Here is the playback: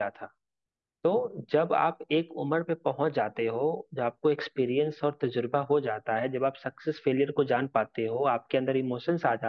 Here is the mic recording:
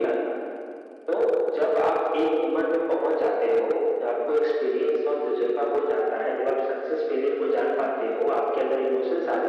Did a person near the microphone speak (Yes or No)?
No